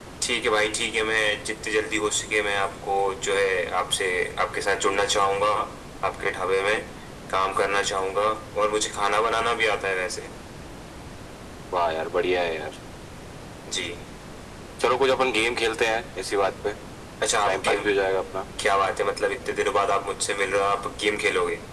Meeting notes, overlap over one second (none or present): none